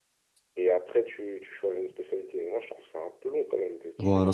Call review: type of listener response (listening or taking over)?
taking over